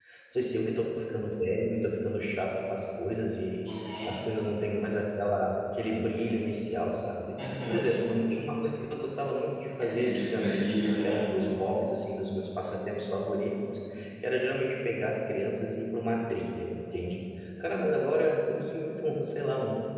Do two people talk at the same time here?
Yes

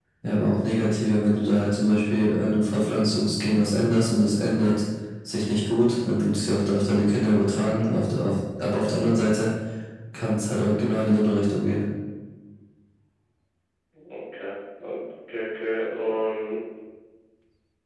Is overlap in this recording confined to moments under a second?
Yes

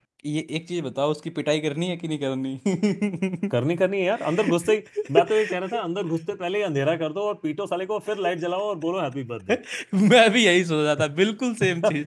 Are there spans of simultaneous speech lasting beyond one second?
No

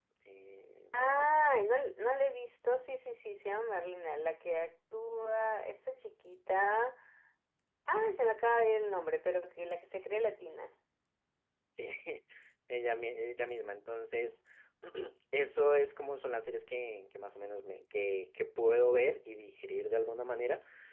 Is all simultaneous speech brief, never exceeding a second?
Yes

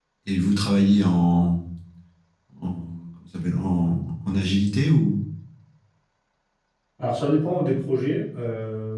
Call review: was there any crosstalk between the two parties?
No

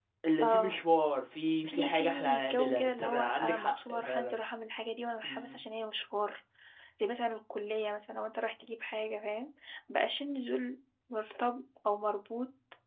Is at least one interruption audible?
Yes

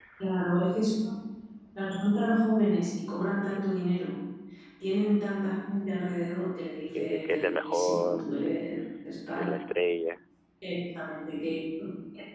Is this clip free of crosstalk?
No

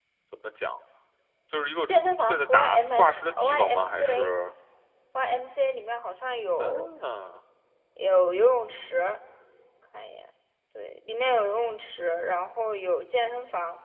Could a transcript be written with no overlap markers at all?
No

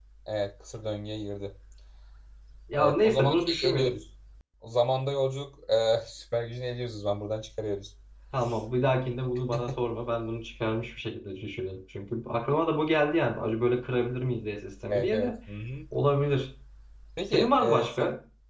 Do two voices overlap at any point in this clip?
Yes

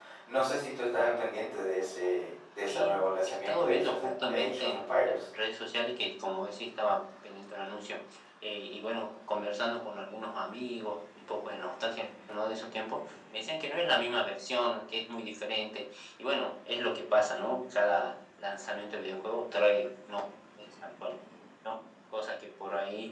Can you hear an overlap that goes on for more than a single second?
Yes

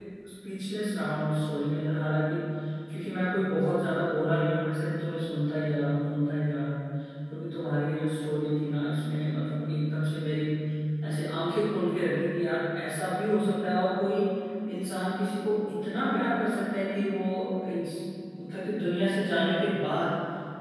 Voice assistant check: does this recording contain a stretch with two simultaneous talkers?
No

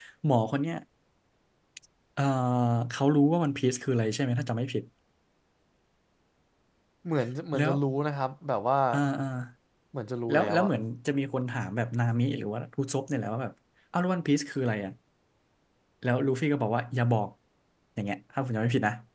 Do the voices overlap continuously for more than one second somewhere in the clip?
No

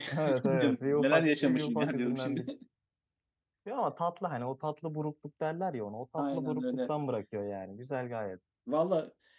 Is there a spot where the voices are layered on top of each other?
Yes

